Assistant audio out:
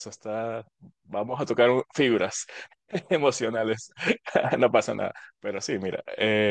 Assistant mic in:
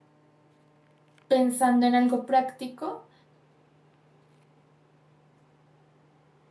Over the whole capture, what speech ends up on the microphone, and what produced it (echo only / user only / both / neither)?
user only